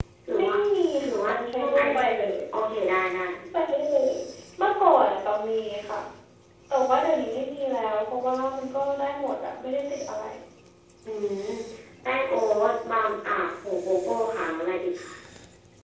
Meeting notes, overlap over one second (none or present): present